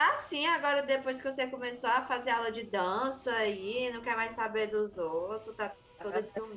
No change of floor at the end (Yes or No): No